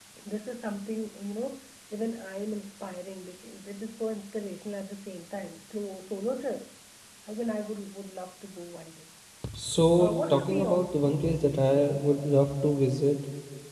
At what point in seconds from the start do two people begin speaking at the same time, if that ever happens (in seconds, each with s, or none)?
10.0 s